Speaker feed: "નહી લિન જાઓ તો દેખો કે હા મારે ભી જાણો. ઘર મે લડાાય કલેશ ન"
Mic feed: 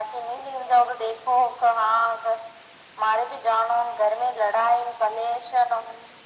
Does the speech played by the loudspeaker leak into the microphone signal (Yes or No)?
Yes